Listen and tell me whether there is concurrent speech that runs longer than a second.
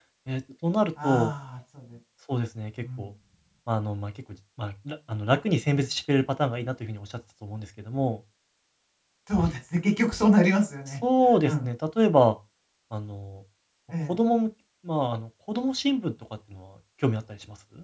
No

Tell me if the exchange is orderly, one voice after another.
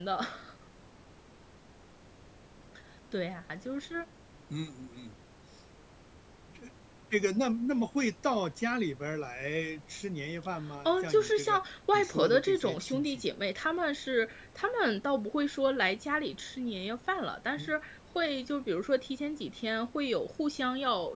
No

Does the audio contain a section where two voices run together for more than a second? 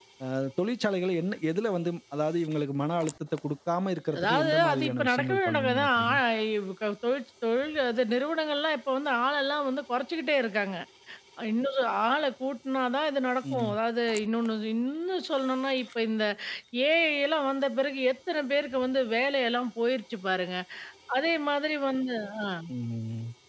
Yes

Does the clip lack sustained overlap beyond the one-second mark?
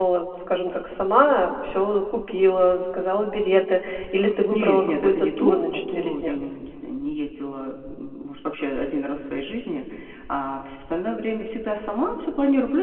No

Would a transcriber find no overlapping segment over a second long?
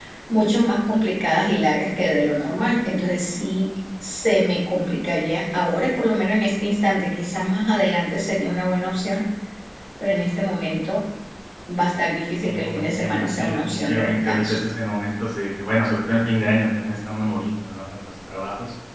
No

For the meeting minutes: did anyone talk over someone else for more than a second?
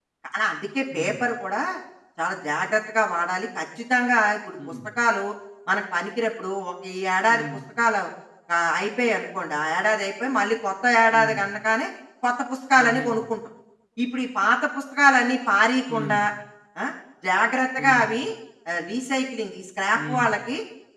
No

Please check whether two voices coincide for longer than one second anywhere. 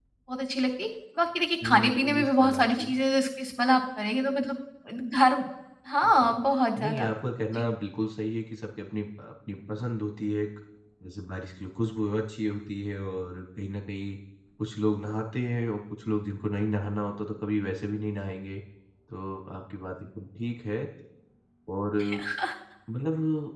Yes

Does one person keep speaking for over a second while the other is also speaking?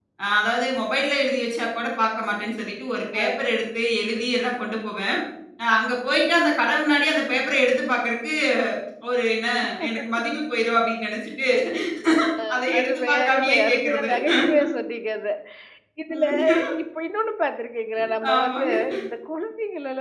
Yes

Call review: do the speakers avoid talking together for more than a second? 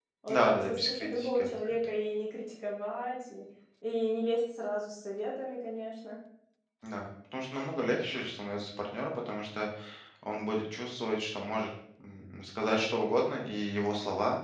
No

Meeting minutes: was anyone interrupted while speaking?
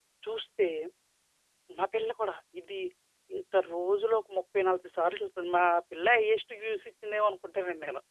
No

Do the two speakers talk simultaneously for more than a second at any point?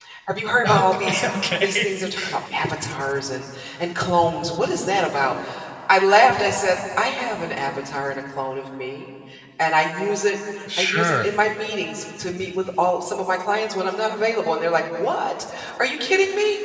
No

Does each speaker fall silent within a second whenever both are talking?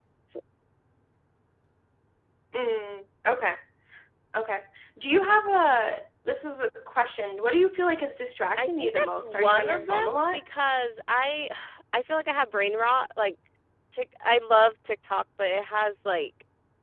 No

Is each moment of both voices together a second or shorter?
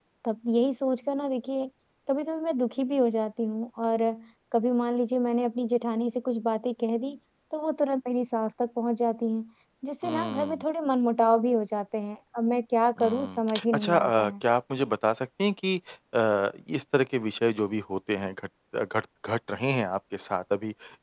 No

